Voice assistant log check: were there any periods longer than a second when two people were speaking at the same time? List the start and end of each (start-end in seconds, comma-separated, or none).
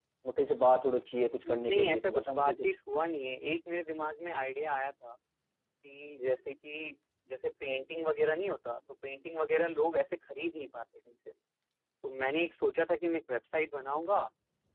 1.5-2.7